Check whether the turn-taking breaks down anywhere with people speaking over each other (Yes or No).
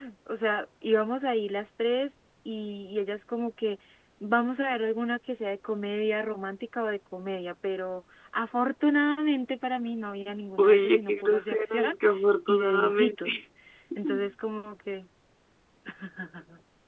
Yes